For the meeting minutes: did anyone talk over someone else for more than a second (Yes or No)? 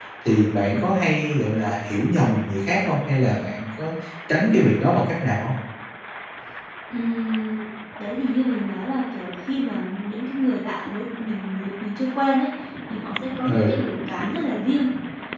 No